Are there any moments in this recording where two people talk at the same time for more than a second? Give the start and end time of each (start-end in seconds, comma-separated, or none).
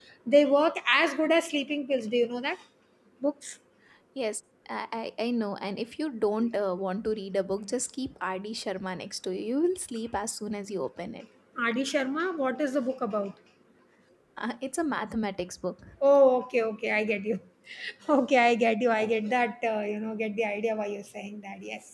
none